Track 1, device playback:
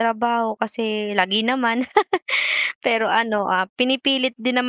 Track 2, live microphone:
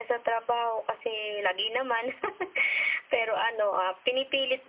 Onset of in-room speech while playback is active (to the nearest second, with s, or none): none